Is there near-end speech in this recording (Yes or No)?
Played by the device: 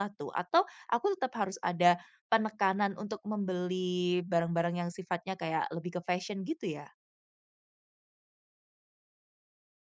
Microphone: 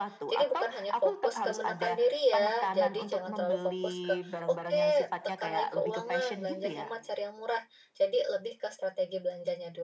Yes